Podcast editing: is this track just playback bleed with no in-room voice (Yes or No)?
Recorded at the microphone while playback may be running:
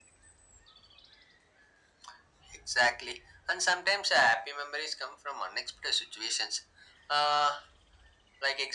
Yes